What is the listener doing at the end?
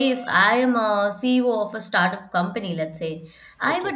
listening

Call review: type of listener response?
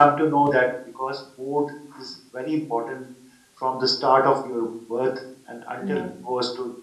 listening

